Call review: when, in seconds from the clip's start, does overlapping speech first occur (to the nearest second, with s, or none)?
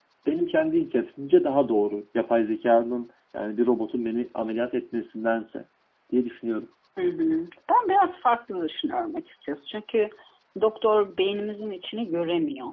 none